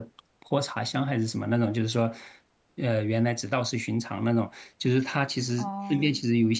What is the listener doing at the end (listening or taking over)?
listening